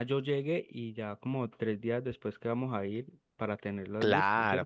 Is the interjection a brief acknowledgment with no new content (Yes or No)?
No